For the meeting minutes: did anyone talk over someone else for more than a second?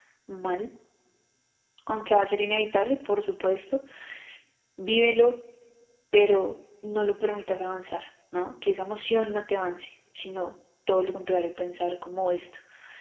No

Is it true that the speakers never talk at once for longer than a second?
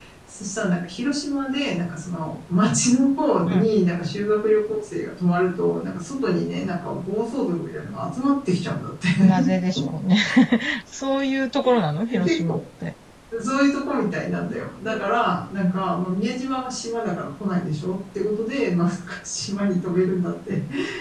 Yes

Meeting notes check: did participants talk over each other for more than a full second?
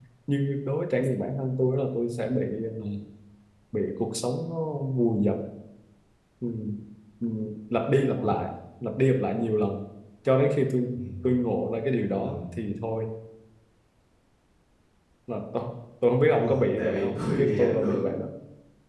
Yes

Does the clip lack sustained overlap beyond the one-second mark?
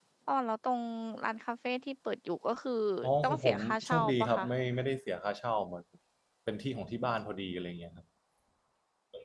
No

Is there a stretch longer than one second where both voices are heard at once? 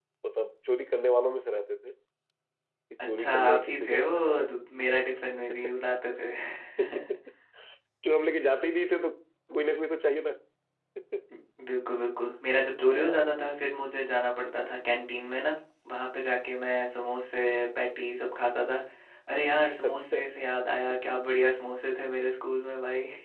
Yes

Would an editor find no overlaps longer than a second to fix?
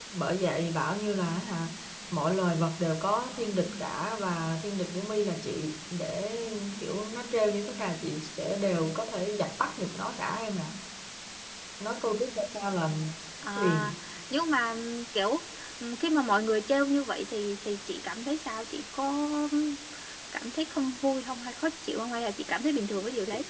Yes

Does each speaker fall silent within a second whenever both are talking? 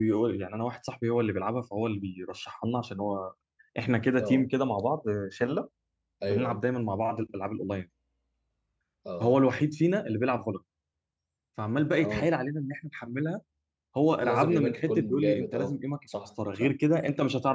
No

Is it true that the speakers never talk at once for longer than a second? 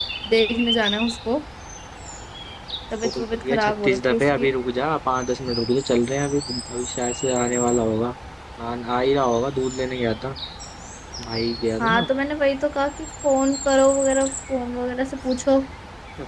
No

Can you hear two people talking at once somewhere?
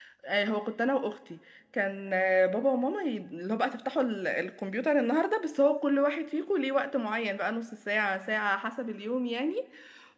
No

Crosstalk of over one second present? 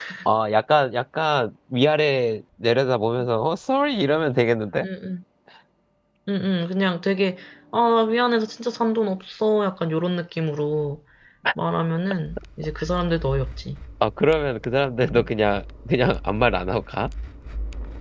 No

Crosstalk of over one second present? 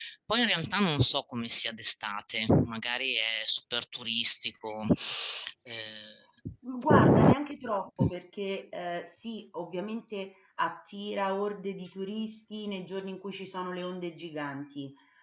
No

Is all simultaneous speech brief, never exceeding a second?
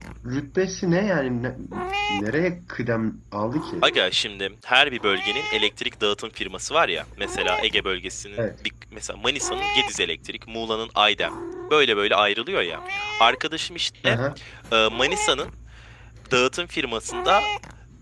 Yes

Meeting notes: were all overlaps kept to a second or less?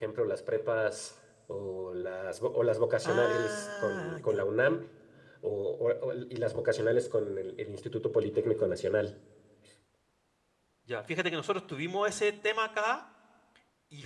No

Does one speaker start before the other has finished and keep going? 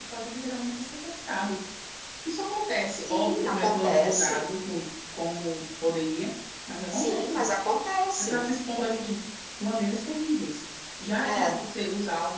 Yes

